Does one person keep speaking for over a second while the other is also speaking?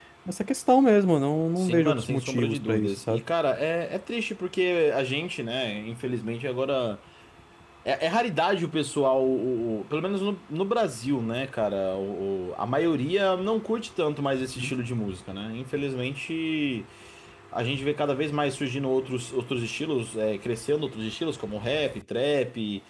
Yes, from 1.6 s

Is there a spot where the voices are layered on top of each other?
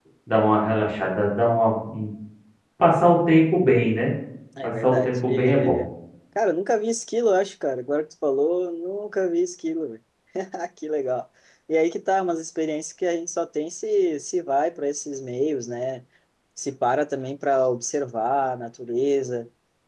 Yes, from 4.6 s

